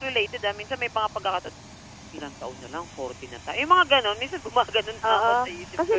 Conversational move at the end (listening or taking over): taking over